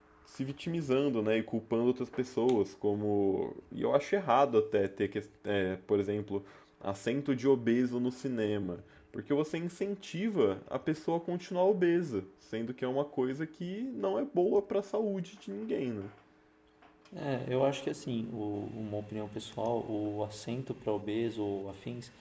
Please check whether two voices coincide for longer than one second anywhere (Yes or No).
No